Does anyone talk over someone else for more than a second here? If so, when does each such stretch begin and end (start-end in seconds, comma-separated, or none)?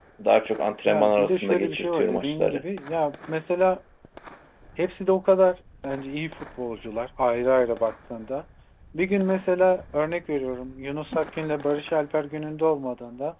0.8-2.6